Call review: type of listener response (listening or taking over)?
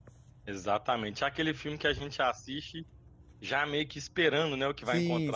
taking over